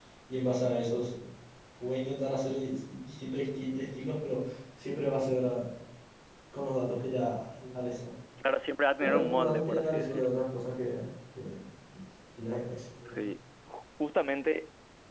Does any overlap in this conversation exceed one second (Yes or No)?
Yes